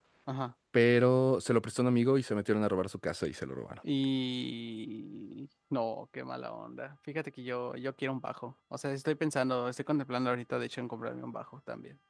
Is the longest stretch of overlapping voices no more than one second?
Yes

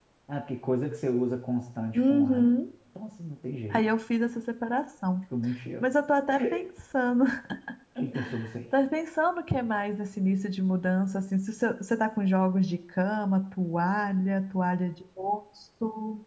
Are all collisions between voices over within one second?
Yes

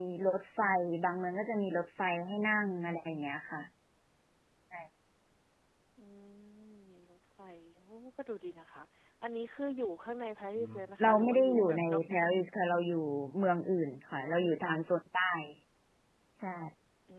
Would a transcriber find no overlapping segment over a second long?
No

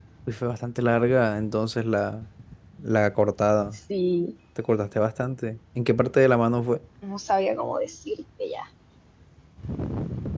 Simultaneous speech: No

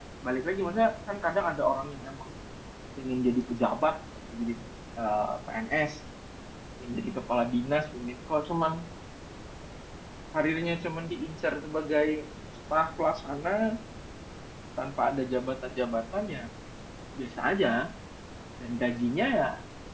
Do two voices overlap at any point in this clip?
No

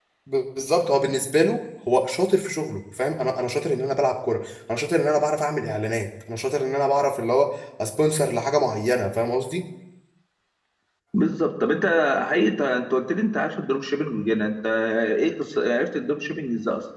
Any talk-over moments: No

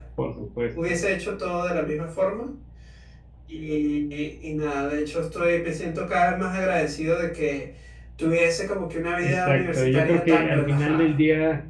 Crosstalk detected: Yes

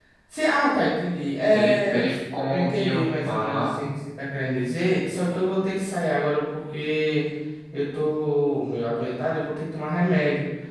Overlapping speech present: Yes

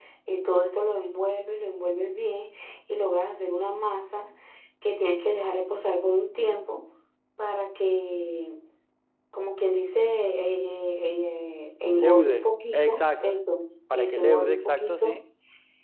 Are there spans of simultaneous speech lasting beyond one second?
Yes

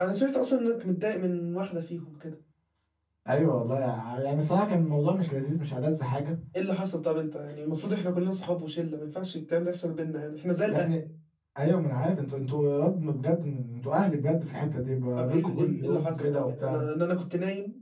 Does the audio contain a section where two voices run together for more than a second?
Yes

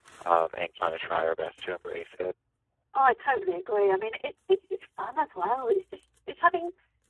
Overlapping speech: No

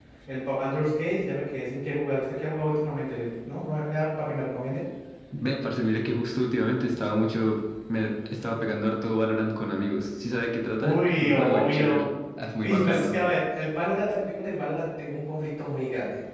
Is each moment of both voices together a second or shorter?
No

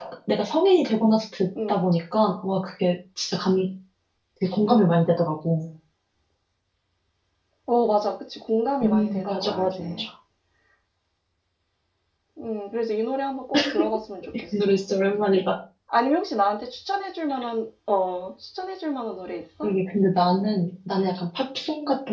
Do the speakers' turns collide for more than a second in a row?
Yes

